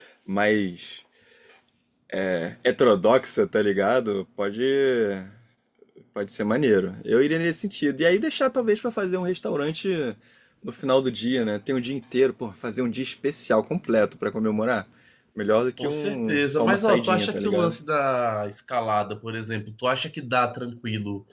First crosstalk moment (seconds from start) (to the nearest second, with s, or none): 16 s